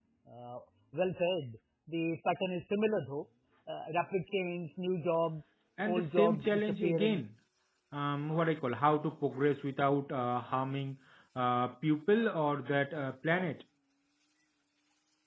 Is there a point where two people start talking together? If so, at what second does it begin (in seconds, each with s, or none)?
5.8 s